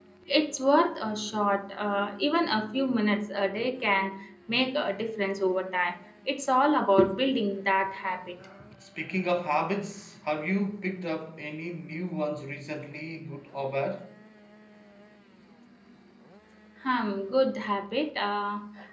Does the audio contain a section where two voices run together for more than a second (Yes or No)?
No